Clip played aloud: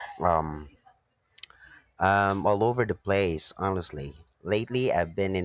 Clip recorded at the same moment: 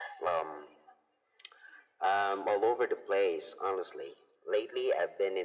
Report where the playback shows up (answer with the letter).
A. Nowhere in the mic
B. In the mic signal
B